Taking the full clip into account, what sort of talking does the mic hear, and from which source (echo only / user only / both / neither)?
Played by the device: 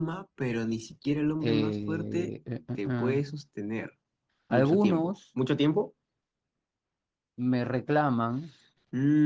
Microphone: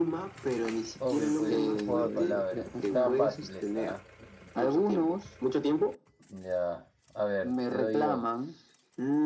both